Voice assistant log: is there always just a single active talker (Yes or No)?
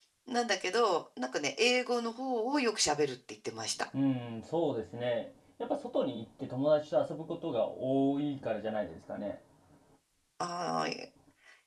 Yes